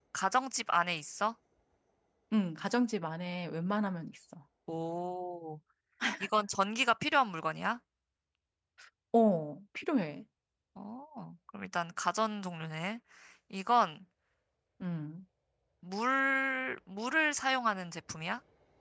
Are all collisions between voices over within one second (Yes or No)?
Yes